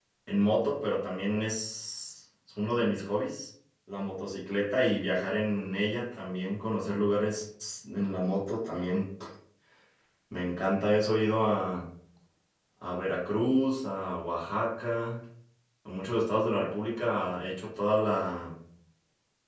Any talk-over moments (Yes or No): No